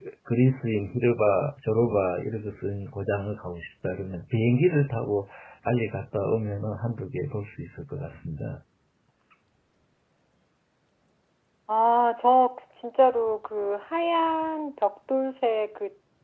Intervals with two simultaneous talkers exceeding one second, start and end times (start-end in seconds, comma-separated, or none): none